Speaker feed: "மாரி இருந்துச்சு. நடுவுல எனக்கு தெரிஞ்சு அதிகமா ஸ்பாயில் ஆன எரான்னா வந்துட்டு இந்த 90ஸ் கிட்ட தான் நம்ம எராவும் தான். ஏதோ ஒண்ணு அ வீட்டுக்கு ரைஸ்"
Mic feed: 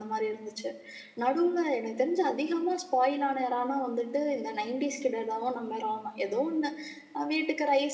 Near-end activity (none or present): none